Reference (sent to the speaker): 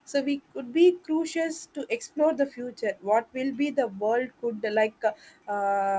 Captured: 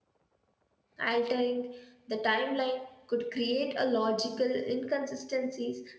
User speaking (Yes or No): Yes